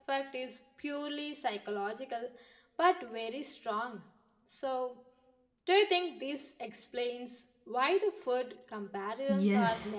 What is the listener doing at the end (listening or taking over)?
taking over